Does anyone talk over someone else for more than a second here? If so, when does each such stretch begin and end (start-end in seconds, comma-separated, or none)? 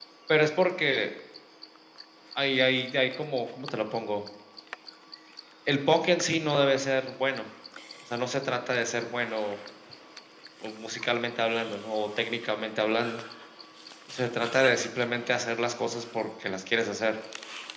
none